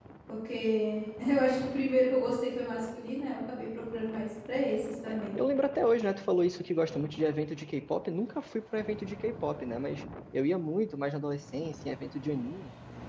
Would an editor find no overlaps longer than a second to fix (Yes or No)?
Yes